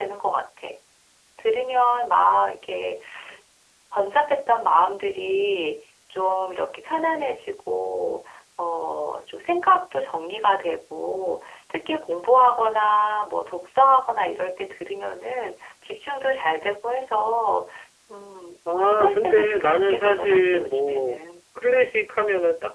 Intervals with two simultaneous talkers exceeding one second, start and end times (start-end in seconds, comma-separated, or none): 18.9-21.2